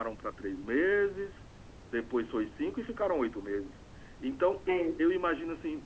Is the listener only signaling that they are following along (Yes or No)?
Yes